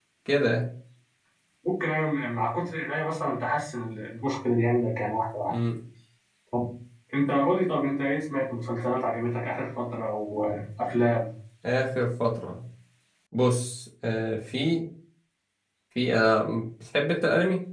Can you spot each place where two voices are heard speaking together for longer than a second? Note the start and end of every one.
none

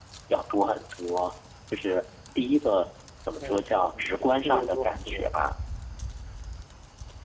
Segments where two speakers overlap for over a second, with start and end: 3.4-5.3

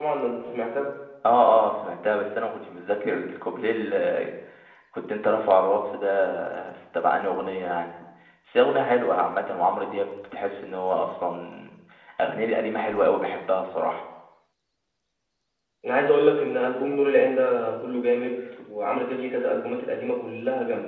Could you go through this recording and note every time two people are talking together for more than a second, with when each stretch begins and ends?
none

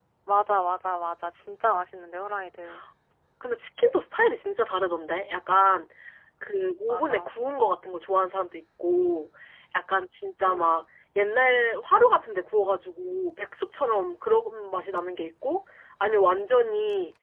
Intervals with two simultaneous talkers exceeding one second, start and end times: none

